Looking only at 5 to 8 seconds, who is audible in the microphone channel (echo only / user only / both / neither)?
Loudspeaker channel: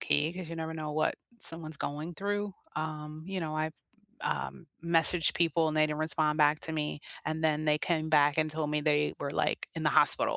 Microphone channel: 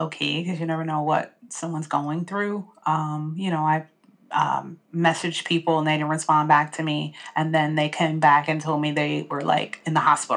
echo only